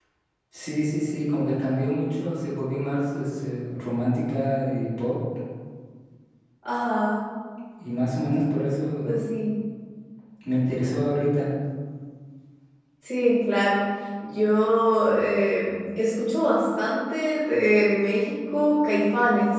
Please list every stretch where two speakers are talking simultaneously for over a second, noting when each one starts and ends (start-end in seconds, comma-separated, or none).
none